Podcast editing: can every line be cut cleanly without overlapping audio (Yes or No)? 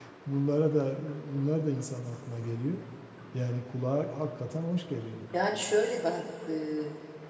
Yes